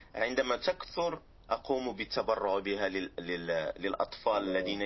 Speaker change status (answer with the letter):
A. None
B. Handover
A